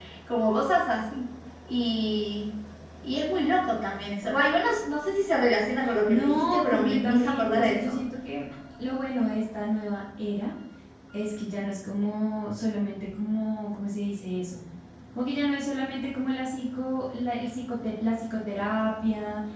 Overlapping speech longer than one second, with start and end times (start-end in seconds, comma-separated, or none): 6.1-8.0